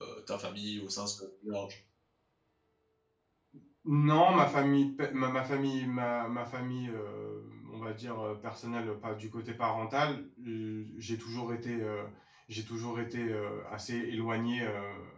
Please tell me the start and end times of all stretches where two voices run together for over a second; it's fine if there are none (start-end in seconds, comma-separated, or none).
none